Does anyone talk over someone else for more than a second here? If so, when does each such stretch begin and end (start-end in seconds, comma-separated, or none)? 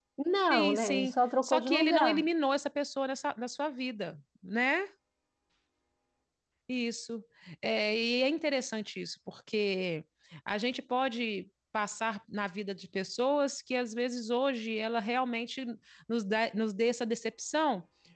0.5-2.2